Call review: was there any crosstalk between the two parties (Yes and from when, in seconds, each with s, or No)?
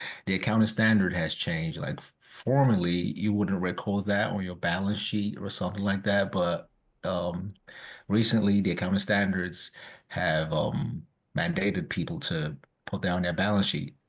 No